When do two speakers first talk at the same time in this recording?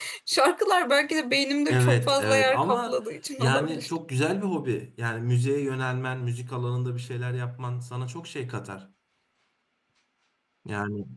2 s

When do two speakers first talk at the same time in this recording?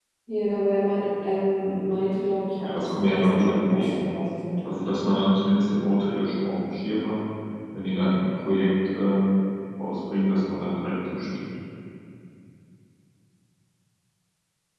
3 s

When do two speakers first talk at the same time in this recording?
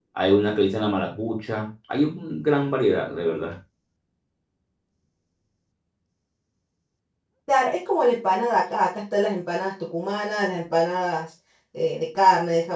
none

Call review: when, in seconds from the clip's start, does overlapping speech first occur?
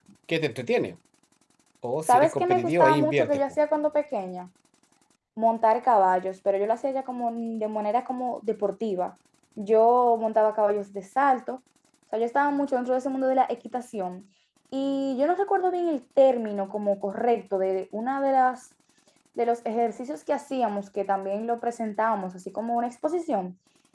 2 s

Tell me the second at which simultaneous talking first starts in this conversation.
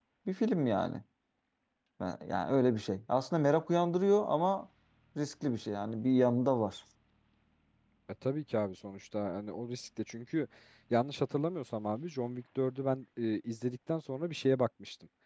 none

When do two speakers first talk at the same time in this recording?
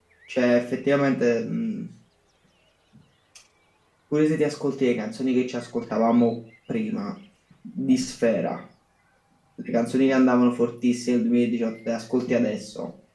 none

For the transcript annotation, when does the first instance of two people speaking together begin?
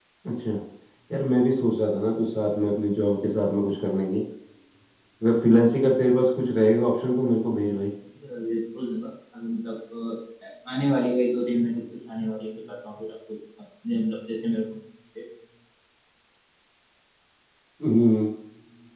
none

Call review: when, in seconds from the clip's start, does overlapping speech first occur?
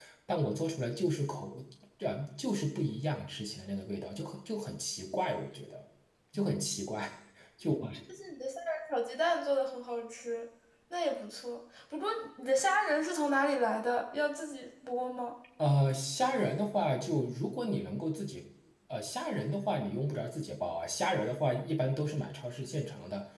none

